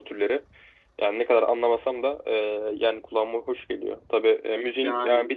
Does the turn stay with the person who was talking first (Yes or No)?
Yes